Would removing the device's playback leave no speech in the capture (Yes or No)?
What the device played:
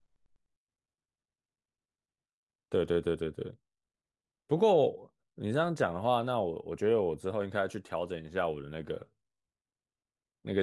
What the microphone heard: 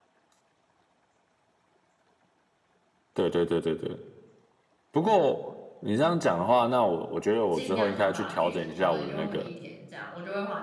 No